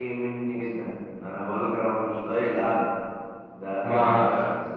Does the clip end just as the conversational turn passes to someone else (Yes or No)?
No